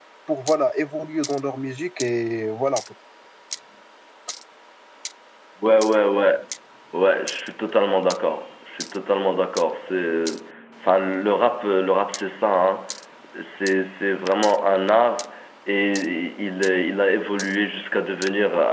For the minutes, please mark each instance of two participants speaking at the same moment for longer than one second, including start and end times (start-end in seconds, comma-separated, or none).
none